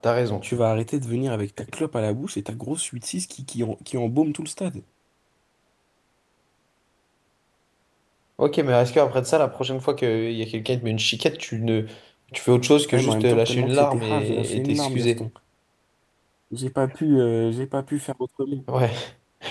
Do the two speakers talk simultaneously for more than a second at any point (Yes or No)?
Yes